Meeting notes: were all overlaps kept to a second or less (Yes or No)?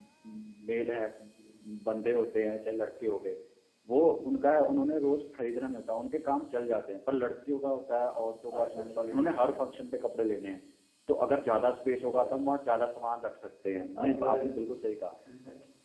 No